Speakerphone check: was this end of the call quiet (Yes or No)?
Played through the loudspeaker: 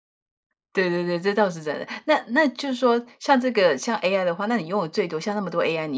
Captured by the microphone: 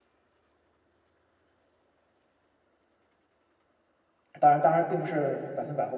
No